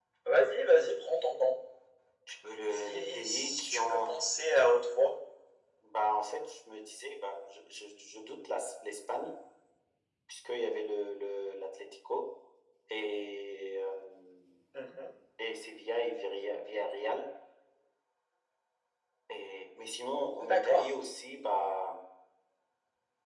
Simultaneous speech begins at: 2.7 s

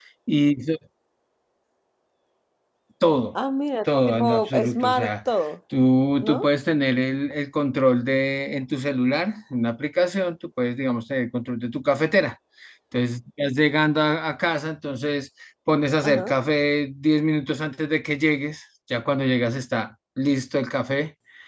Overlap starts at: 3.9 s

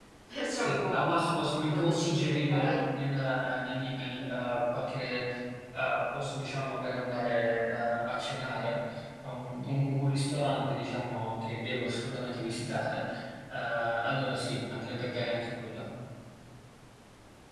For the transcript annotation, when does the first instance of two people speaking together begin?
0.6 s

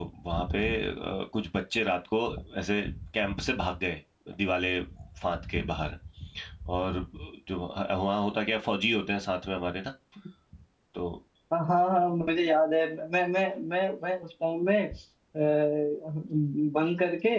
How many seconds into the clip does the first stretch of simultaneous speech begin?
none

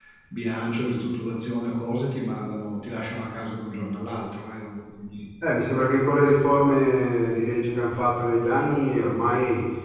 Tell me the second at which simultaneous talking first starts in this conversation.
none

